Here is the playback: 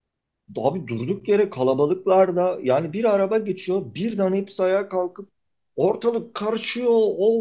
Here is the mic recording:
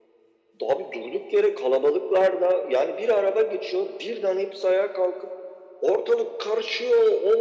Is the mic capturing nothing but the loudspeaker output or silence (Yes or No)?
Yes